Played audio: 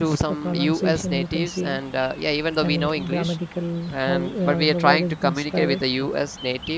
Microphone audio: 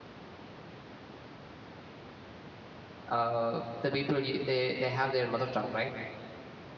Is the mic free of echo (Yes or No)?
Yes